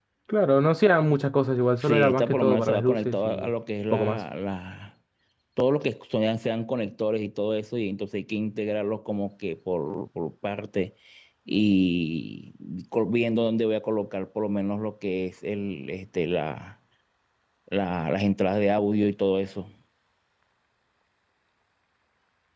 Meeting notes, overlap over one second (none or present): present